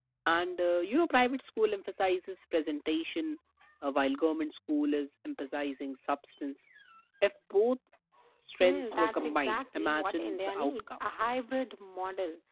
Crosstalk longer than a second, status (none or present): present